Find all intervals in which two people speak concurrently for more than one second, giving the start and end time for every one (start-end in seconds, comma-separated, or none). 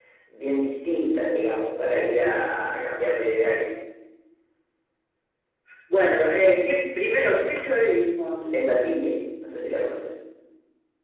none